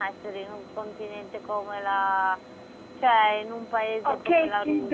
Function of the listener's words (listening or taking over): taking over